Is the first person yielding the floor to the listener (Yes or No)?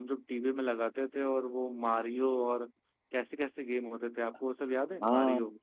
Yes